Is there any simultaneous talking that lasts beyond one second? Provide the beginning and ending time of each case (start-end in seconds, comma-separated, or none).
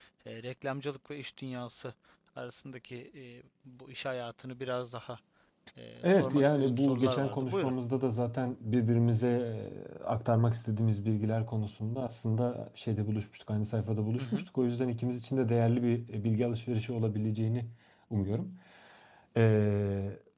6.0-7.7